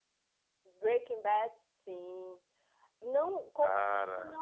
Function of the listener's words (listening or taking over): listening